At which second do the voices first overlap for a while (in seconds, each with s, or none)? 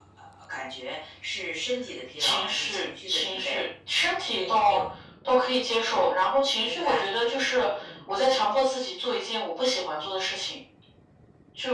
2.2 s